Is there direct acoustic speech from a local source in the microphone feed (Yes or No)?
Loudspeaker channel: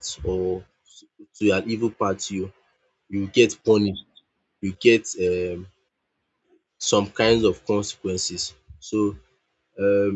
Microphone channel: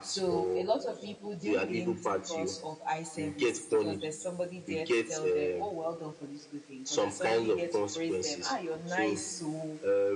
Yes